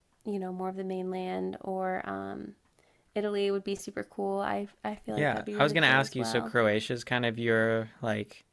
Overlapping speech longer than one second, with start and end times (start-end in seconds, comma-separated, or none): 5.1-6.5